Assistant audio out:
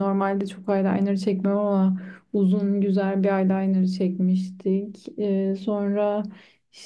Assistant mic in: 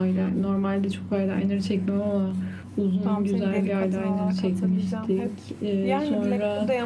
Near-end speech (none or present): present